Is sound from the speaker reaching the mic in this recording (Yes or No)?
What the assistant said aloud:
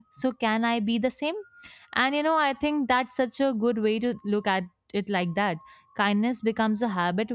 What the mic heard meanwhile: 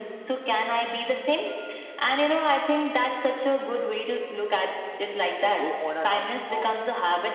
Yes